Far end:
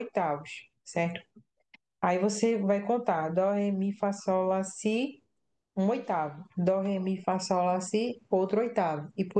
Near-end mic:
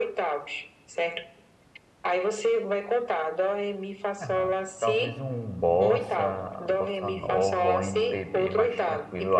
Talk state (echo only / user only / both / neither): both